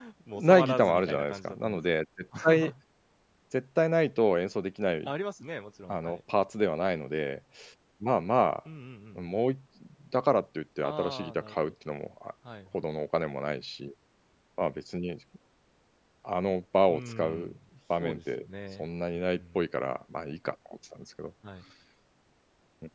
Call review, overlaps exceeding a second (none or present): present